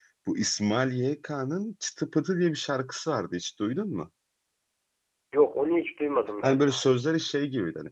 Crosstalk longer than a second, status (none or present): none